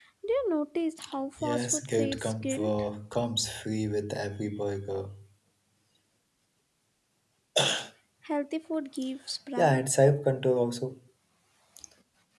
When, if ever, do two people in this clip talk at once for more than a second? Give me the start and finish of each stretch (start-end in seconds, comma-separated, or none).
1.4-2.8